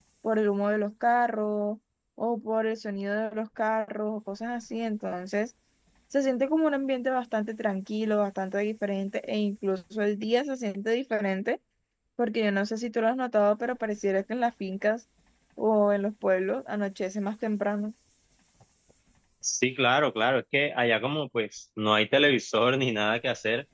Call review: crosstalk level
none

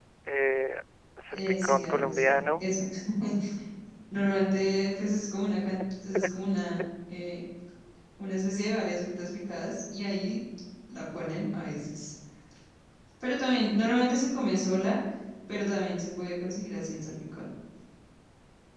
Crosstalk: present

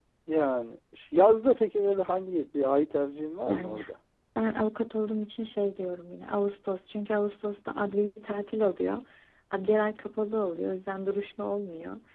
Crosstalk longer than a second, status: none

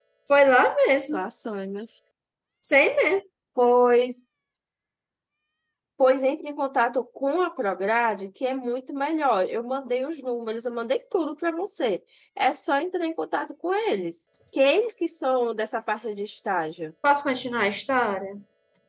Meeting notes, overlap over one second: none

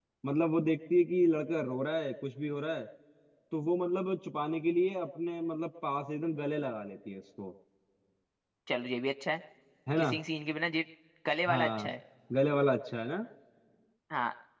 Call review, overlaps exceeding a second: none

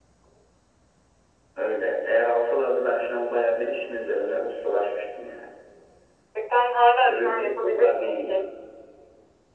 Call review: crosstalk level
present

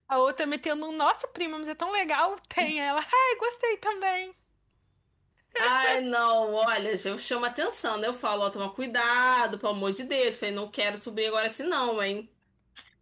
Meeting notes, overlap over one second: none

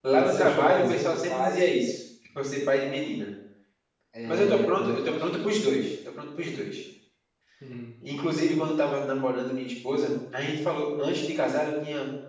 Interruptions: present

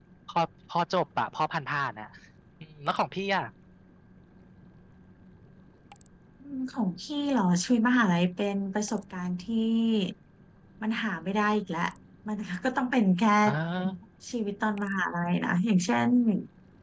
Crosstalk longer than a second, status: none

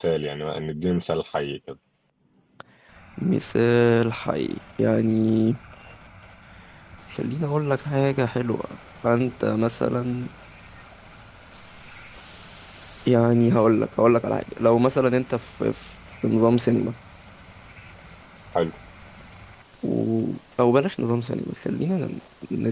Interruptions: none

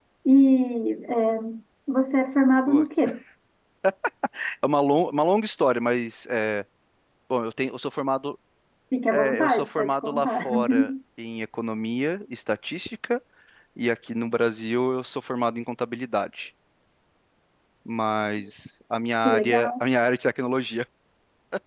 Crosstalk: present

